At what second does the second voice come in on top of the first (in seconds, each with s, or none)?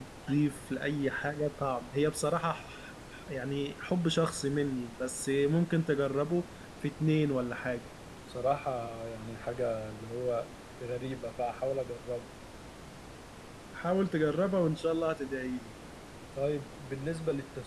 none